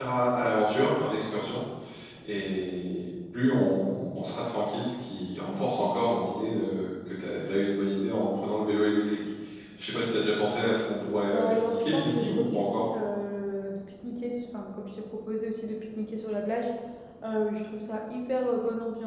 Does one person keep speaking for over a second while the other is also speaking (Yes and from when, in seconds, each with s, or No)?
Yes, from 11.2 s